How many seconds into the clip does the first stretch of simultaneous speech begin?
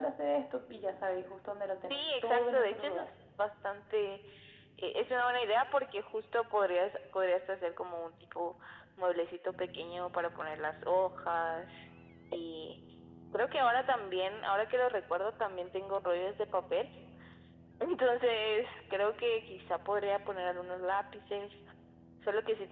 2 s

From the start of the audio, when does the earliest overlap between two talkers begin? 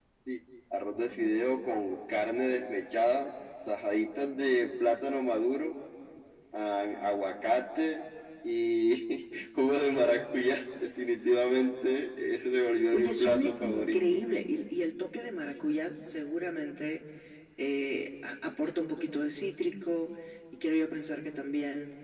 13 s

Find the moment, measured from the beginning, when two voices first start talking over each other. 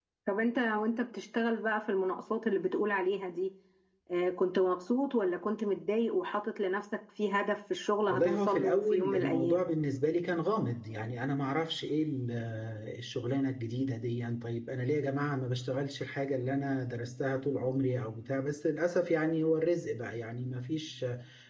8 s

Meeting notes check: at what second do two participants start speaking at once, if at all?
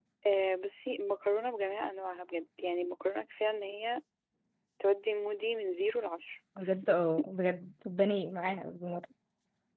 none

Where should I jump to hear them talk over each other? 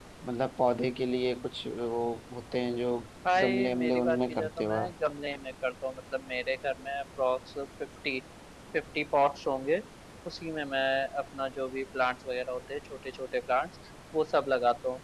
3 s

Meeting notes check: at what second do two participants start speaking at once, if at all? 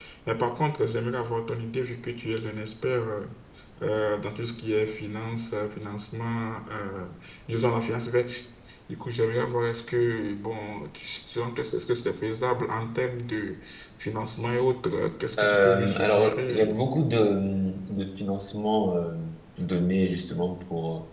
15 s

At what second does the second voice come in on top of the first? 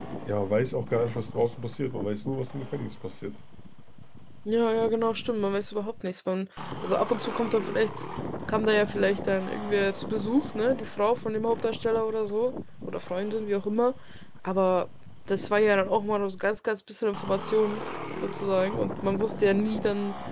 none

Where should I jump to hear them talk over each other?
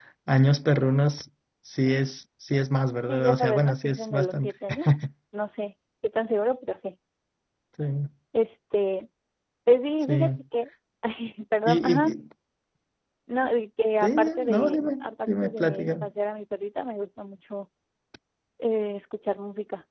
3 s

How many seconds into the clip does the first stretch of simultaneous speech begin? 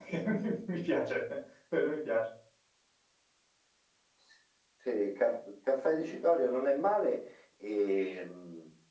none

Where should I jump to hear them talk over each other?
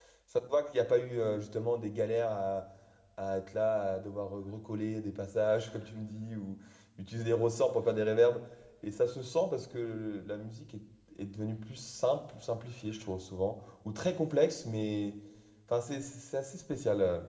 none

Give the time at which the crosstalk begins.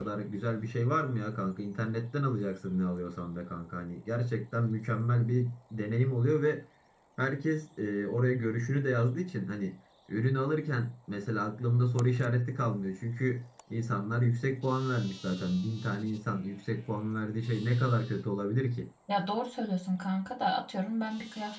none

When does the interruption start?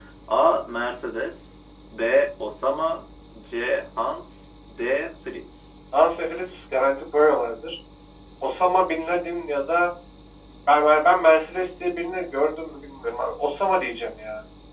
none

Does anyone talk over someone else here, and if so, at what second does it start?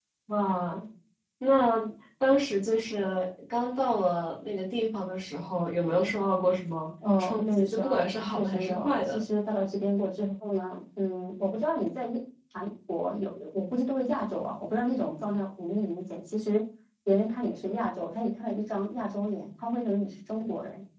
7 s

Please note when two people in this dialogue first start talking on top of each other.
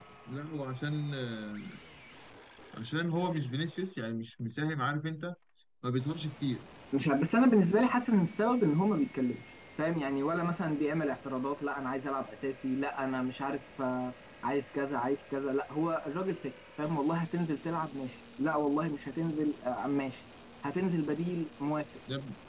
none

